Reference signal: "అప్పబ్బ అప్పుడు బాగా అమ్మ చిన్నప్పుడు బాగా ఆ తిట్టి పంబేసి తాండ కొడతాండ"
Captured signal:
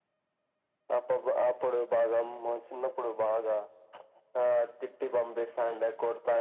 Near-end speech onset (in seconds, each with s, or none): none